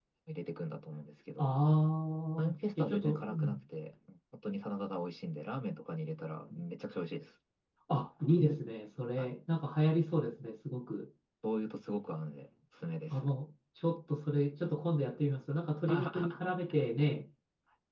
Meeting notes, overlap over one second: present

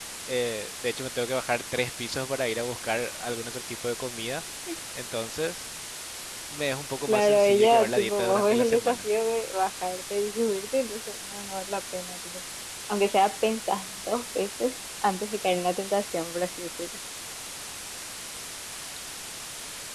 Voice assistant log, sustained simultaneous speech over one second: present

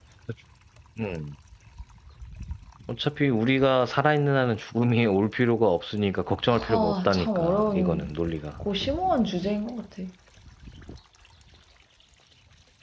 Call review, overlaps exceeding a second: present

